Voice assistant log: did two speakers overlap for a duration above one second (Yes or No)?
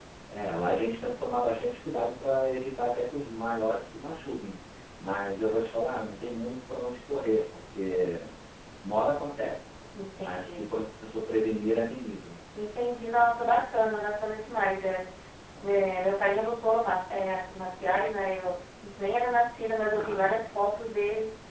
No